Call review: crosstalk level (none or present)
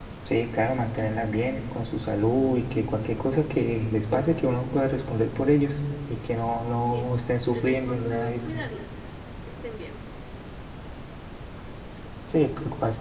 present